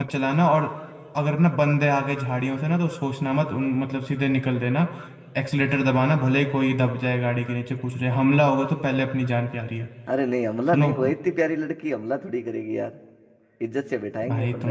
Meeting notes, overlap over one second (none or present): none